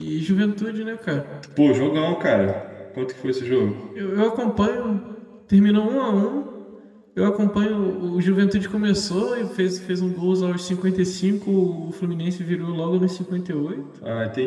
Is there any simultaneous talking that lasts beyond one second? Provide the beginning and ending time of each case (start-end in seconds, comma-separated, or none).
none